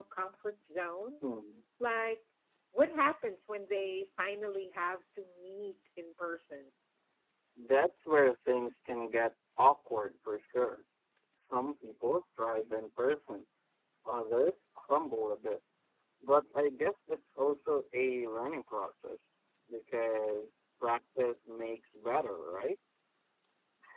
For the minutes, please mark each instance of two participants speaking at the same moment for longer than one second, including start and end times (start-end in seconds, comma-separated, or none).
none